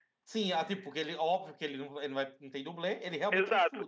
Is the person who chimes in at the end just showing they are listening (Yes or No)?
No